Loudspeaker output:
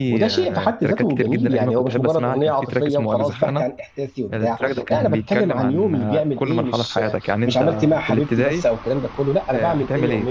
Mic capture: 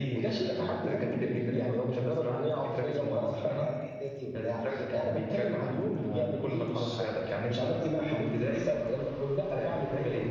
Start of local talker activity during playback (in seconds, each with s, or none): none